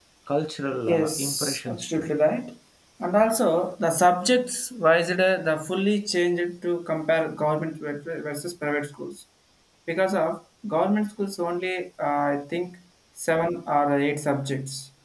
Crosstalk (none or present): present